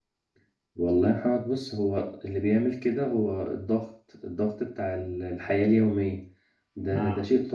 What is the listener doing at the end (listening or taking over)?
listening